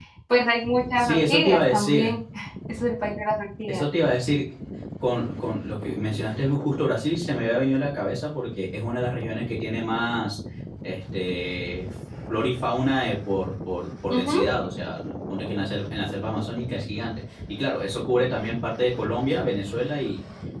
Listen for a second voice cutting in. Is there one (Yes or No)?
Yes